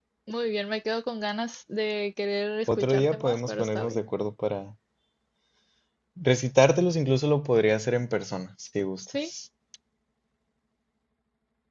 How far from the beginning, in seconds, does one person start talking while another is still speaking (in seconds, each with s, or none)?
2.7 s